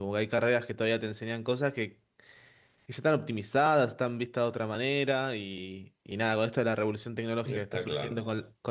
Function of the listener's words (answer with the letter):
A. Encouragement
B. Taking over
A